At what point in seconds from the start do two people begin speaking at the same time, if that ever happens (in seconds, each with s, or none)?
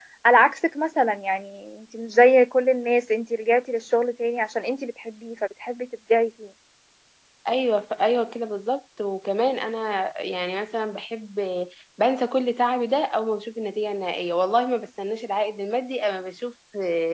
none